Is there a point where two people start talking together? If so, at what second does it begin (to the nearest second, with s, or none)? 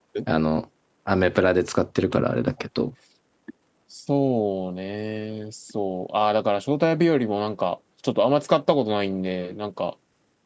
none